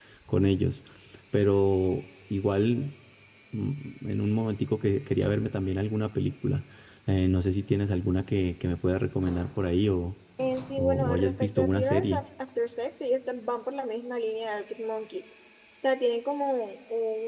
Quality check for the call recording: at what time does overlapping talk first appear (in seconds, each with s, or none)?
10.8 s